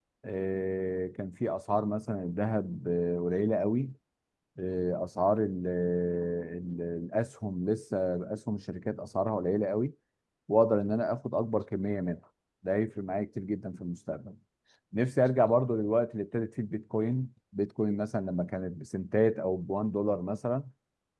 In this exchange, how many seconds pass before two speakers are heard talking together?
none

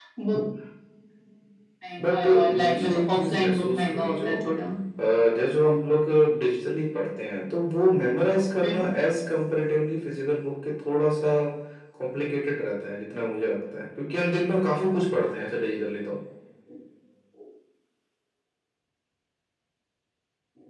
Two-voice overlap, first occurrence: 2.0 s

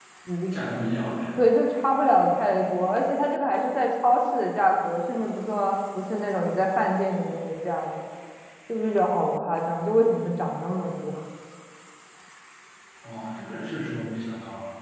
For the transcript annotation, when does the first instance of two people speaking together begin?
none

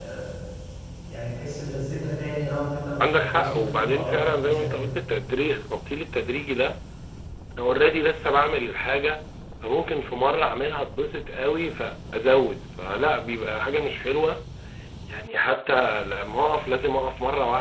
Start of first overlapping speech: 3.0 s

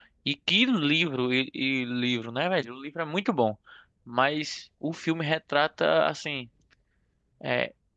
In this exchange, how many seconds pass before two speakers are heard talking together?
none

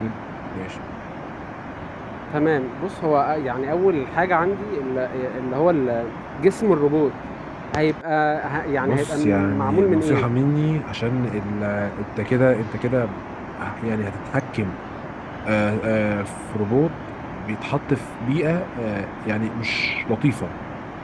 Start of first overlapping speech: 8.8 s

